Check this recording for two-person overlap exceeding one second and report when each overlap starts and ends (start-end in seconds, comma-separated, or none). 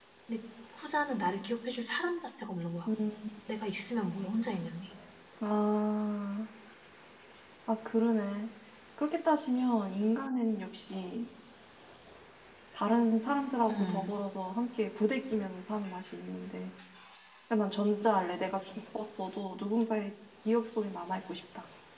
none